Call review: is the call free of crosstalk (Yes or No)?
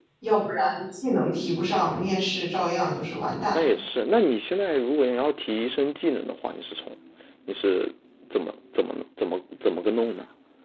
Yes